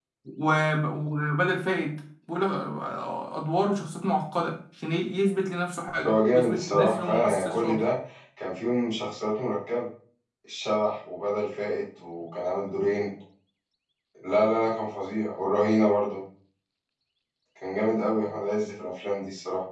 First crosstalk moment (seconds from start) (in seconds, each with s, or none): 6.0 s